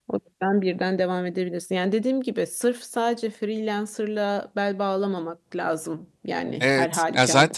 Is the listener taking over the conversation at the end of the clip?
Yes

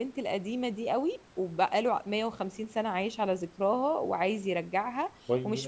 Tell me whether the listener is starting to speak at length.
No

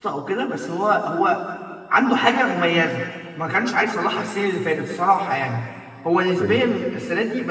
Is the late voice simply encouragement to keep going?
Yes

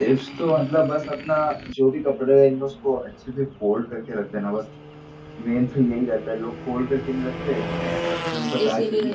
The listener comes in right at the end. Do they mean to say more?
No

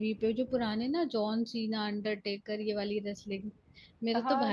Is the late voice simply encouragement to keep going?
No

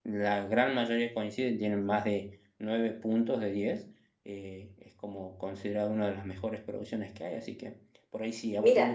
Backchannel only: No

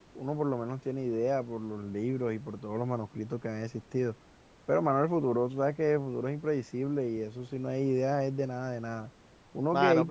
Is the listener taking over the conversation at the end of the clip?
No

